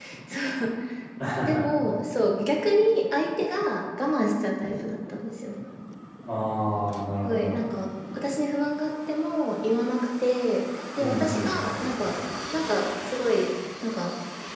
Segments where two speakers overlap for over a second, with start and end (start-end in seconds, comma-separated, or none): none